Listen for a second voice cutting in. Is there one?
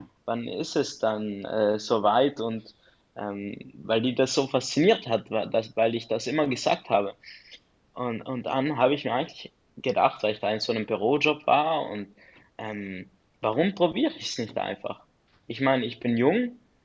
No

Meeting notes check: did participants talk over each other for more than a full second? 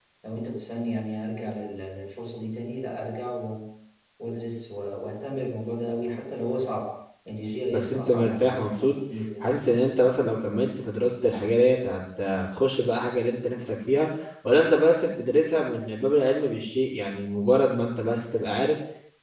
Yes, from 7.7 s

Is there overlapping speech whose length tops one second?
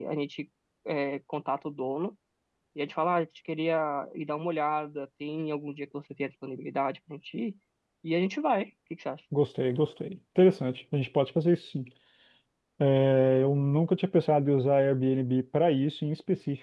No

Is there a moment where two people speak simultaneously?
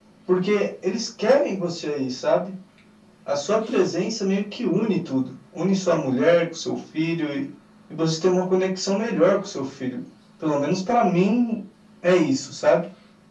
No

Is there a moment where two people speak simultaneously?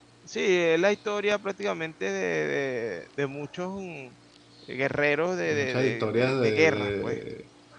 Yes, from 5.5 s

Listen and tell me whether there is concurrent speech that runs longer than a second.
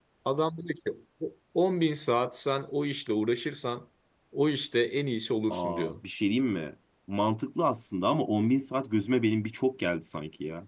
No

